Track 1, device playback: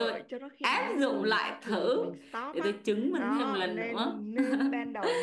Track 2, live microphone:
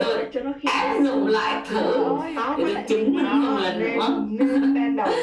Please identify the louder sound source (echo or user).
echo